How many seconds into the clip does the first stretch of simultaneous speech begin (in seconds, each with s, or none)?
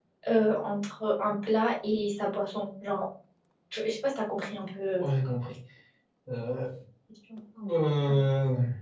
none